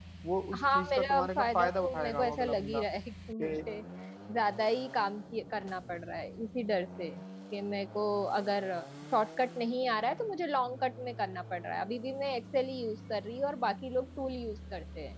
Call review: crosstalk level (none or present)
present